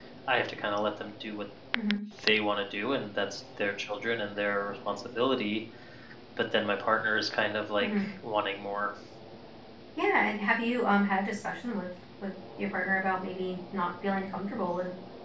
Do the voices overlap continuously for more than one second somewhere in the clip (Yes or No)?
No